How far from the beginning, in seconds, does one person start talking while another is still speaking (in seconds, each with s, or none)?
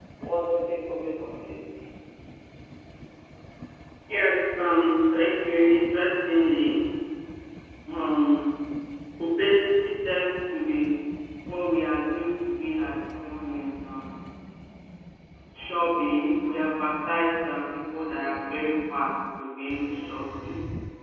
none